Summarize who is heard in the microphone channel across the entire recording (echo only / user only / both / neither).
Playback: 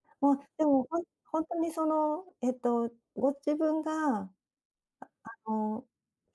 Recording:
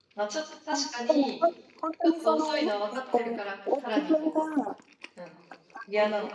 both